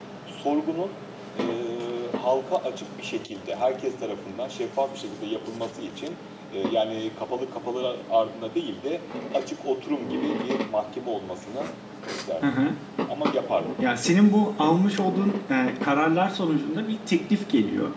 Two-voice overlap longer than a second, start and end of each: none

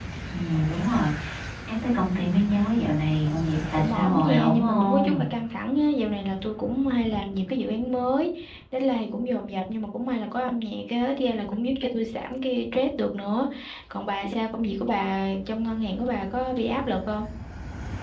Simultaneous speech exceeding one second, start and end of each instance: 3.7-5.2

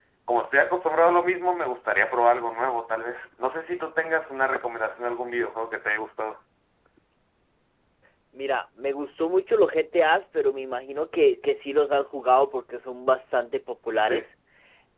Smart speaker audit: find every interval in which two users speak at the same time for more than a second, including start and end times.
none

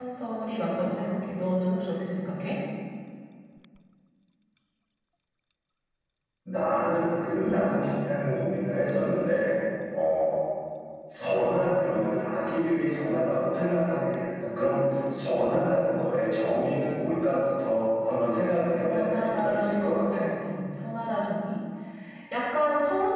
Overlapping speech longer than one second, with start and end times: 18.8-20.3

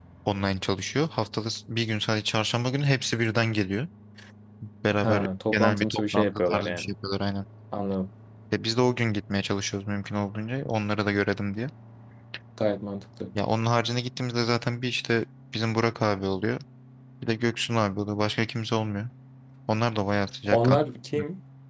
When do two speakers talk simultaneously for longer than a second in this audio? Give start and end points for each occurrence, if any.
5.0-6.9

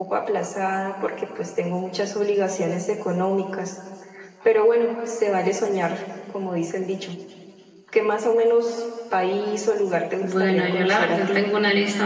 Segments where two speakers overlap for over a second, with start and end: 10.2-11.4

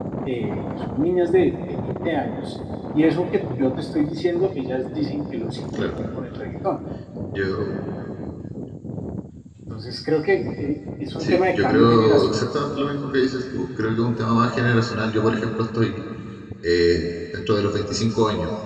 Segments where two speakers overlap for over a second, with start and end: 11.2-12.7

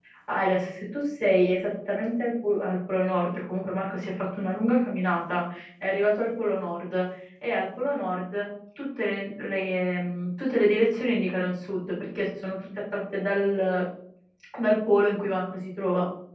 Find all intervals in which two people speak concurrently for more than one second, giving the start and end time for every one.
none

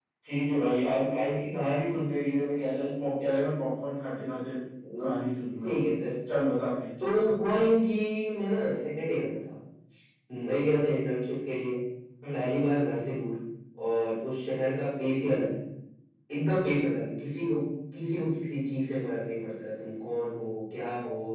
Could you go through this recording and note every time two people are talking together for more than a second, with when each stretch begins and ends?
none

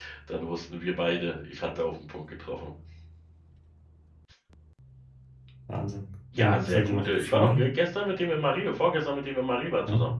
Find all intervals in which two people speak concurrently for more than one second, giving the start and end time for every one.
6.4-7.7

